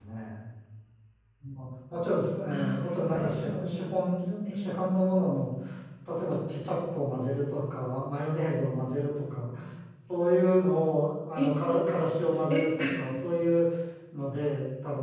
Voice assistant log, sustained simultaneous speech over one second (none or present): present